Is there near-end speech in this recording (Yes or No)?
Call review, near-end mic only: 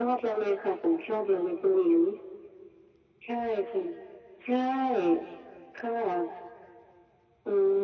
No